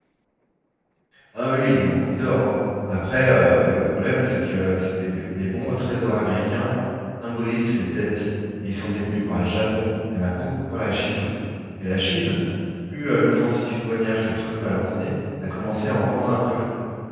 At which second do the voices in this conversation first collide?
none

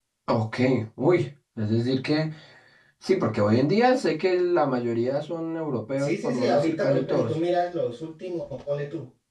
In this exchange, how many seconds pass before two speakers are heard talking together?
6.0 s

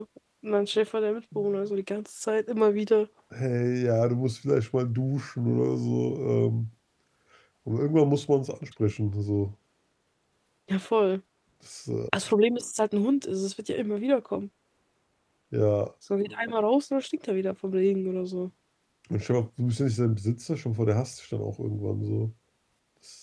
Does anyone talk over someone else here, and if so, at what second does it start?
none

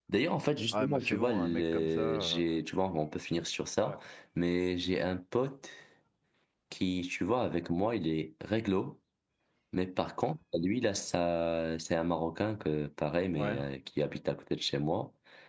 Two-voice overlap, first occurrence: 0.7 s

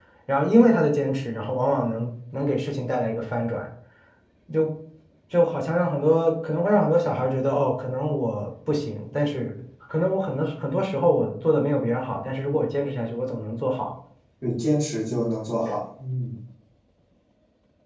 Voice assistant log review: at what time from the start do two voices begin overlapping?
none

